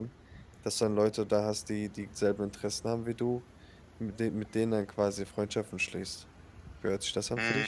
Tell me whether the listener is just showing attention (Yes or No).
No